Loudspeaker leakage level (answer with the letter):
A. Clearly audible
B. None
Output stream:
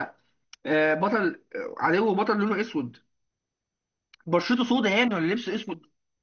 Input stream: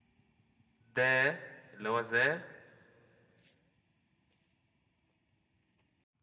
B